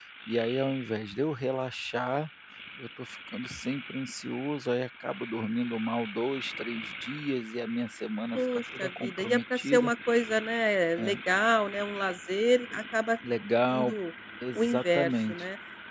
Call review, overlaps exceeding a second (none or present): present